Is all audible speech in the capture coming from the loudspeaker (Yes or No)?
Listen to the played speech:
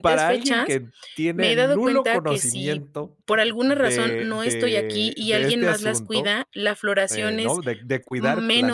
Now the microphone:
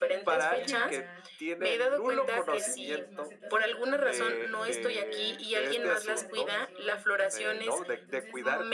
No